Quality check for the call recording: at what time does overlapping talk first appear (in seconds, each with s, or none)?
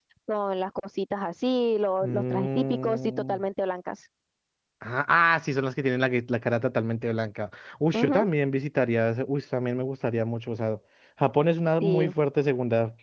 2.0 s